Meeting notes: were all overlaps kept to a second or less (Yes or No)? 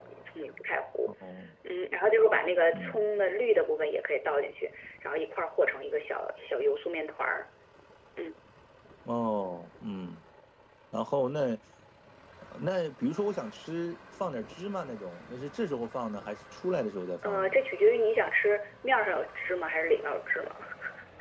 Yes